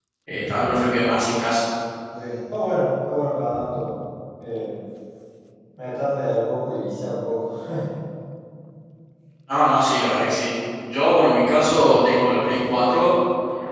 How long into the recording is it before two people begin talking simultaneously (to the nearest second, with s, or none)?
none